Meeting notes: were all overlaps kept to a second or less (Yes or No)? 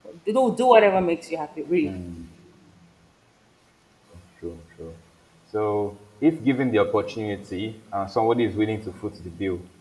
Yes